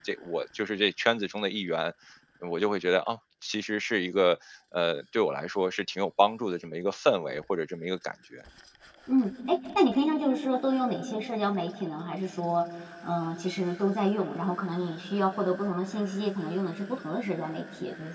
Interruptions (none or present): none